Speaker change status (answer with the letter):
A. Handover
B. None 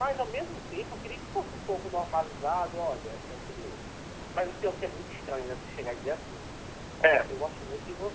B